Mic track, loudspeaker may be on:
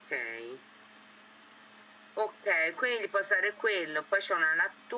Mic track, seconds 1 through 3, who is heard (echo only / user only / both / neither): echo only